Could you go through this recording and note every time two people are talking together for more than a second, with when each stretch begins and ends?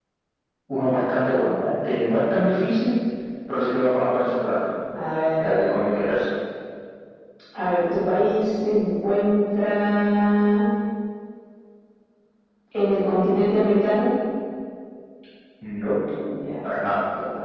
none

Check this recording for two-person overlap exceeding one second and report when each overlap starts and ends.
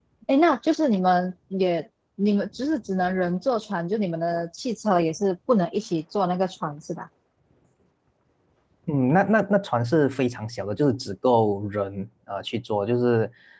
none

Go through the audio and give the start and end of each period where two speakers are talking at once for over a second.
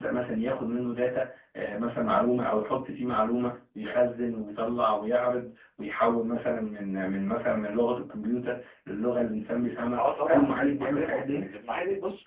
10.0-11.5

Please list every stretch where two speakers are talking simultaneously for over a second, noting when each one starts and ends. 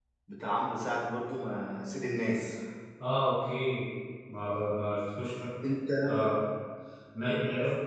none

